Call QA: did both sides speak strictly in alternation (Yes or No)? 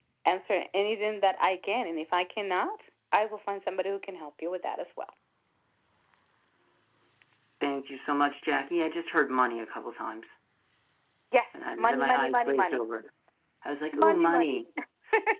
No